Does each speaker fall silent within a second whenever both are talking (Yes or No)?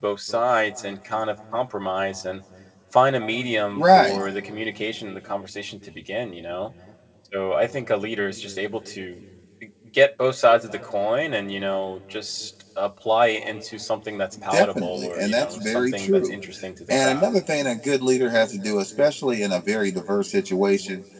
No